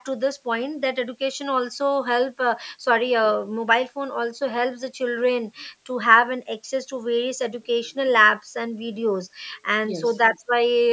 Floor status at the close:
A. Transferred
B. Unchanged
B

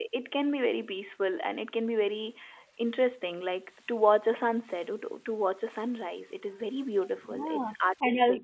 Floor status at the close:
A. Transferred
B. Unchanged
A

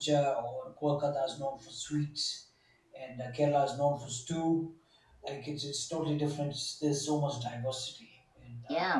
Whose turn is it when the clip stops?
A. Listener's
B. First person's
A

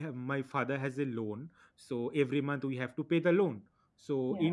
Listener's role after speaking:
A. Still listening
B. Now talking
A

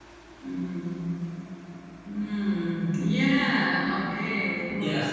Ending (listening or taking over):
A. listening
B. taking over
B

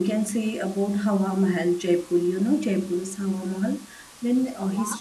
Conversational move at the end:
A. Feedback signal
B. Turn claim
A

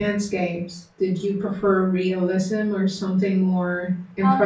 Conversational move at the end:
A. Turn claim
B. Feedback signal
A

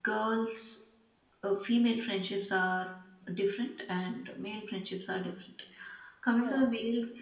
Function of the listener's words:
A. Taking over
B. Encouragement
B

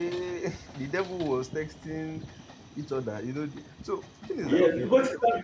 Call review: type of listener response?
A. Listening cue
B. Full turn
B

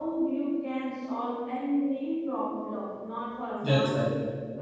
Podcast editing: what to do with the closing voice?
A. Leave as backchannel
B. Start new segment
A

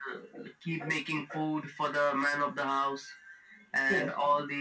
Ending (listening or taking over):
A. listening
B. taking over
A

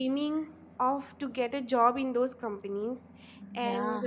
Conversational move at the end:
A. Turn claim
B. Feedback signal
B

